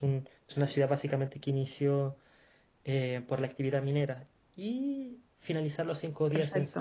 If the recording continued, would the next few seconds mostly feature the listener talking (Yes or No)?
No